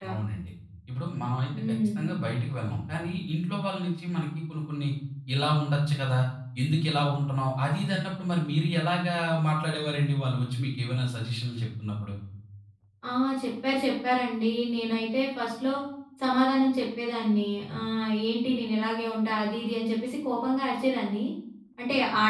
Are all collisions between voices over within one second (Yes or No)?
Yes